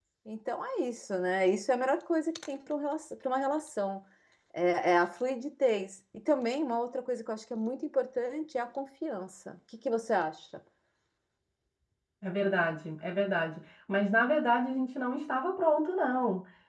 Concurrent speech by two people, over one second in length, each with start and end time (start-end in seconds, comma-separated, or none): none